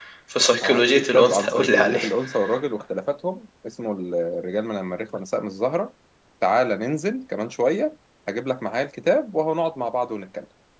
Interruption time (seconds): 0.6 s

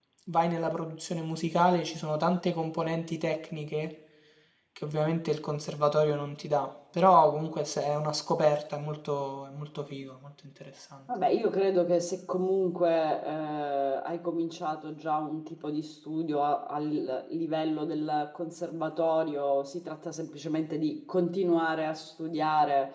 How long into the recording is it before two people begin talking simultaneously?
none

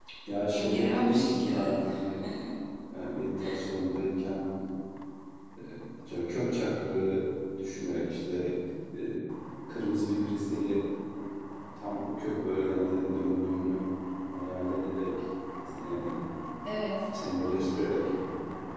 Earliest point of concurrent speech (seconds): 0.5 s

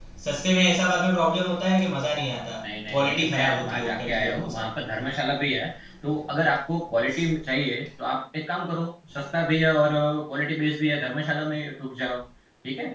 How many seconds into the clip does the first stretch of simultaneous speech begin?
2.9 s

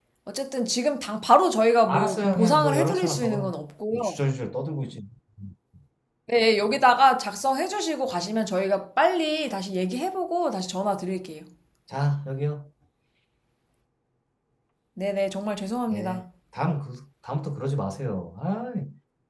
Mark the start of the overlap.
1.9 s

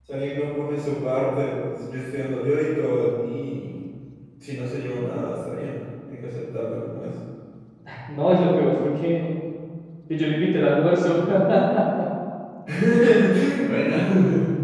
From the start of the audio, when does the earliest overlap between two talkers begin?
none

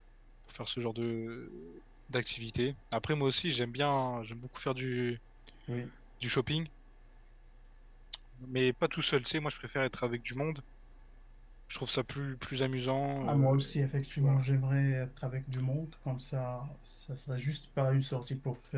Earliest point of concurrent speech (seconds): 13.2 s

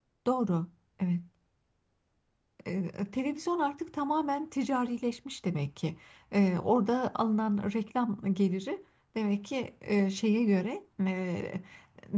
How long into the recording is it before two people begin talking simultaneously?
none

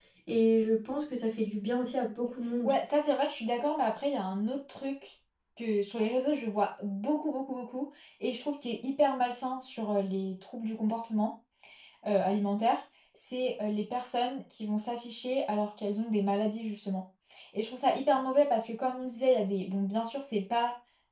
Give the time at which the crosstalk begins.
none

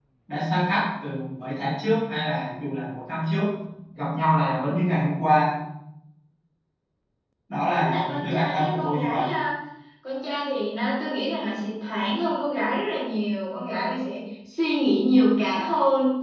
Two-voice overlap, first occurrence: 7.7 s

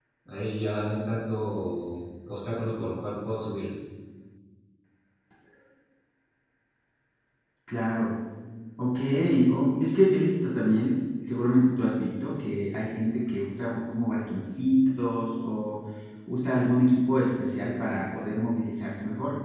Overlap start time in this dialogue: none

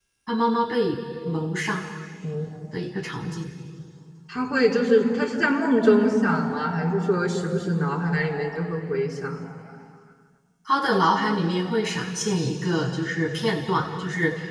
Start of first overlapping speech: none

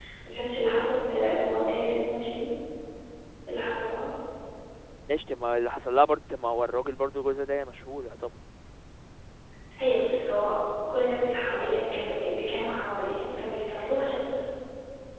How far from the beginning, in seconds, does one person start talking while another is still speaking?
none

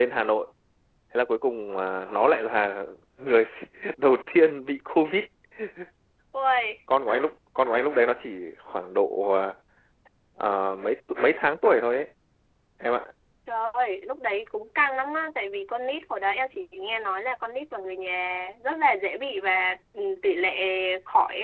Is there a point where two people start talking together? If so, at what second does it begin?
none

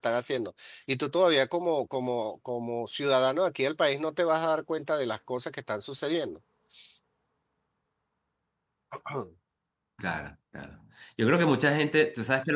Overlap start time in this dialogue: none

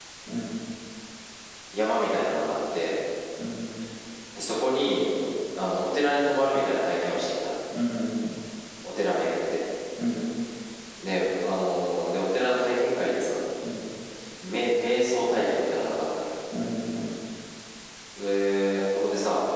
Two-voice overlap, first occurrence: none

